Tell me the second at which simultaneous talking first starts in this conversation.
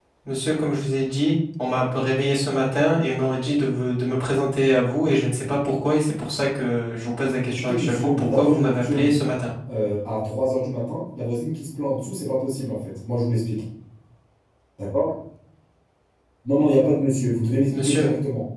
7.4 s

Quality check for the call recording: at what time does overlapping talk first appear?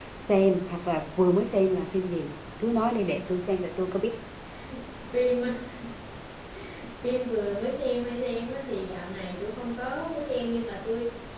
none

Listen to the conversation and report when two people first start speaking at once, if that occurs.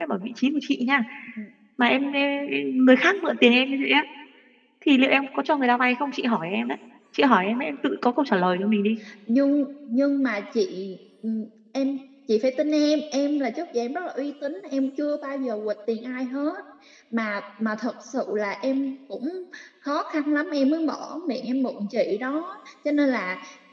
none

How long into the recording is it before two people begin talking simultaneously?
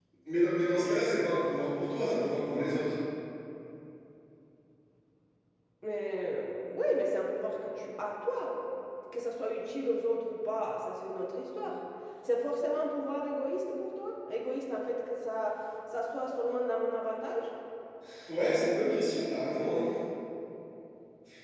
none

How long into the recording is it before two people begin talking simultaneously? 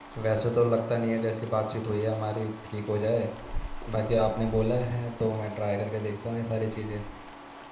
none

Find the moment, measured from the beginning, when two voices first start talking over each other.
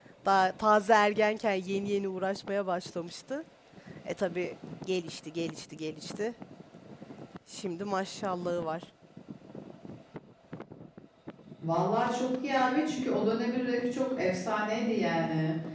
none

